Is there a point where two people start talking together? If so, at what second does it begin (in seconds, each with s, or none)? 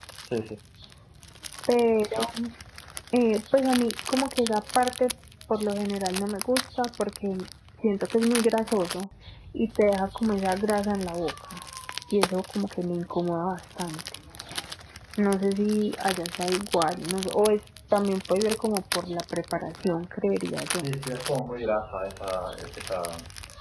none